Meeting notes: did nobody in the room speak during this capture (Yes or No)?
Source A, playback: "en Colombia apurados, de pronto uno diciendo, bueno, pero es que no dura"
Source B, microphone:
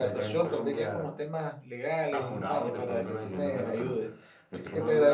No